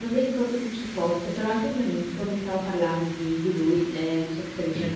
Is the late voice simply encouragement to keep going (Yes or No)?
Yes